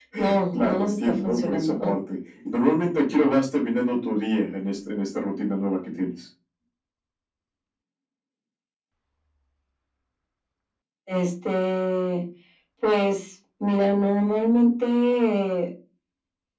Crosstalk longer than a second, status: present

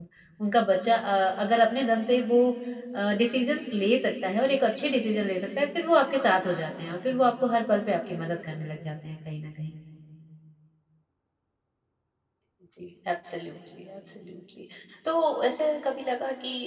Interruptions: none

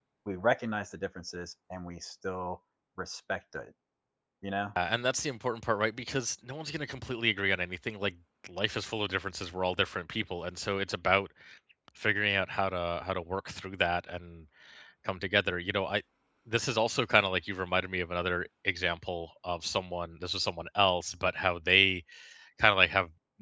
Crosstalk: none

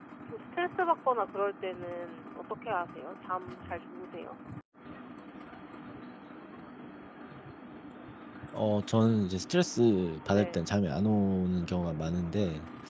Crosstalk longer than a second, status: none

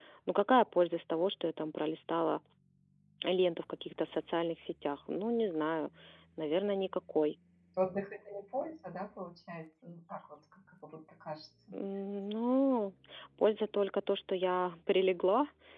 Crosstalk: none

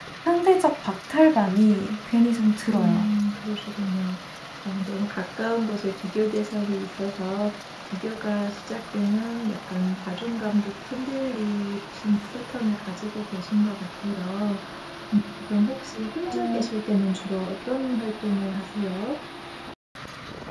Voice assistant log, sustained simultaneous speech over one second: none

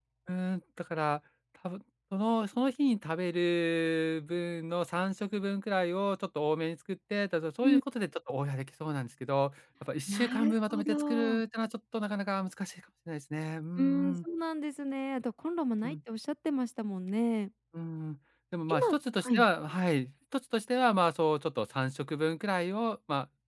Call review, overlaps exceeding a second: present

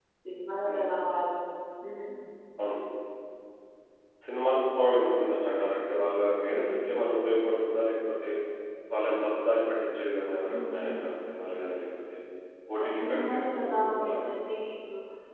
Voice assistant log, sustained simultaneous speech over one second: present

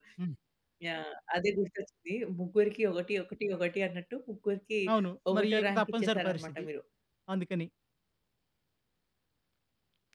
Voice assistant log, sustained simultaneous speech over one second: present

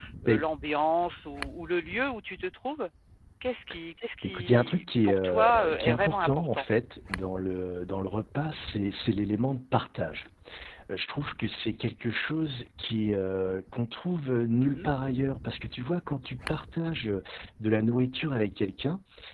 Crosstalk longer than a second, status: present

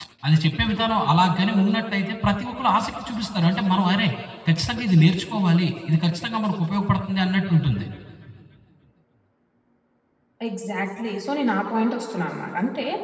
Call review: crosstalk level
none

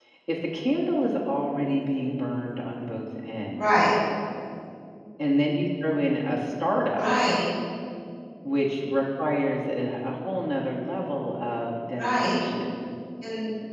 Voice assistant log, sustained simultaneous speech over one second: none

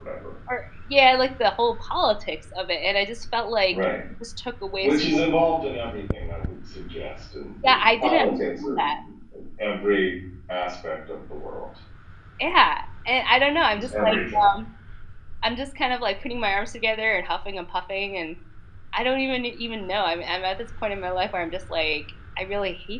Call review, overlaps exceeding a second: present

